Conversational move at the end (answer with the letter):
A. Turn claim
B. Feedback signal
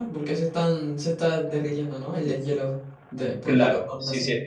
A